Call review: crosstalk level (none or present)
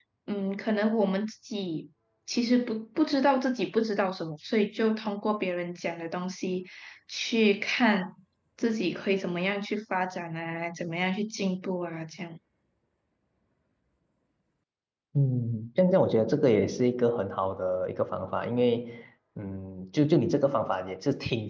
none